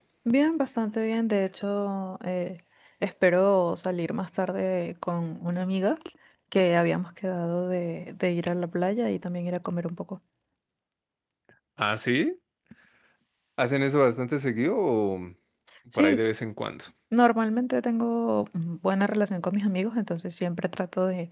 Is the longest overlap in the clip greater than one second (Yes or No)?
No